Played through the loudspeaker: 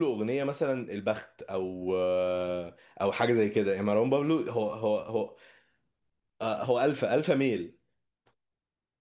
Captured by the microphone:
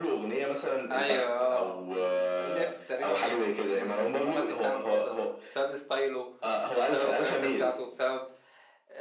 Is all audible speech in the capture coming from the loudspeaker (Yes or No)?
No